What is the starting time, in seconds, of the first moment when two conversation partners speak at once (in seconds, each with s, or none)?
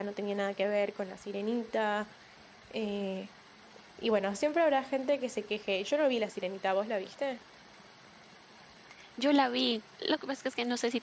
none